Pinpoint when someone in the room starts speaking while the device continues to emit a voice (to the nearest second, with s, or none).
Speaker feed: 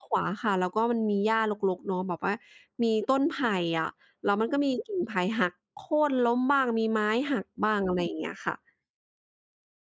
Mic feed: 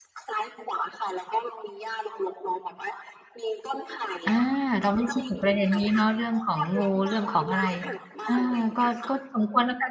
4 s